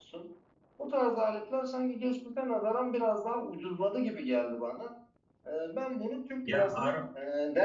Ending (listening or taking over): listening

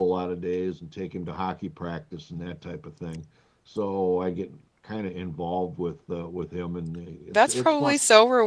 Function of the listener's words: taking over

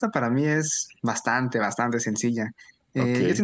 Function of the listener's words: listening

